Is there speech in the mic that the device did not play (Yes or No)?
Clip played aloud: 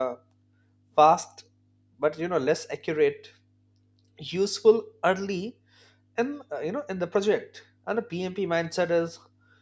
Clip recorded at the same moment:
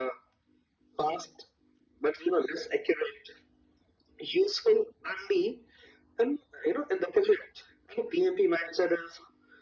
No